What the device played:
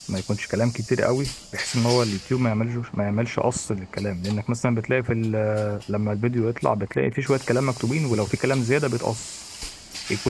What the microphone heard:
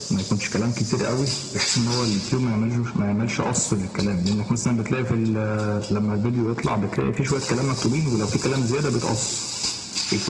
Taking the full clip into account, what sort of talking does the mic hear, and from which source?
echo only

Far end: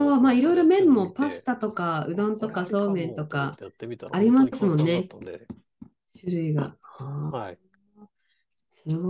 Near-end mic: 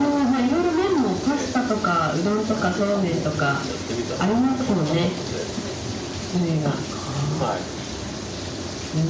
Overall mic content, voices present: echo only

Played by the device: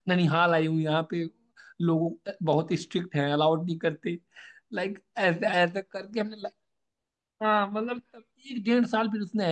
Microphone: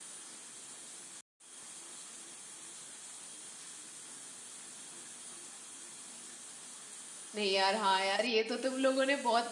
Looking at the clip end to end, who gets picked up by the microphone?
user only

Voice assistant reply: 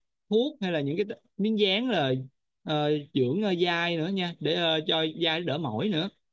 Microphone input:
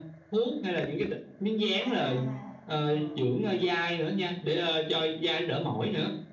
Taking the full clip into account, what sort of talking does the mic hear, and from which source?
both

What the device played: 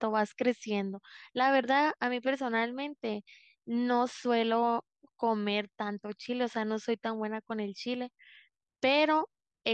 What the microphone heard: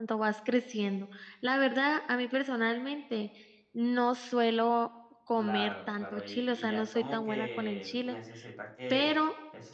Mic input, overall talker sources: both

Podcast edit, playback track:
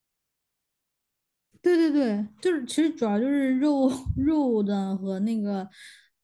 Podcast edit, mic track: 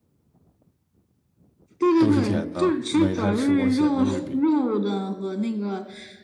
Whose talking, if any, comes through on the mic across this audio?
both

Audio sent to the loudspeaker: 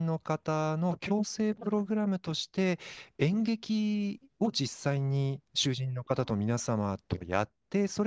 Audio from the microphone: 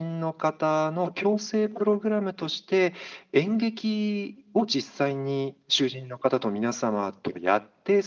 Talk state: echo only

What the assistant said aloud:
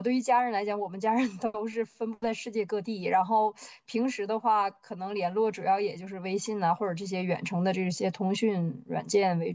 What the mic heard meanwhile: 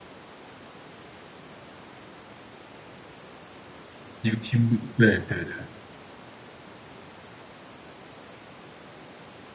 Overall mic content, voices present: user only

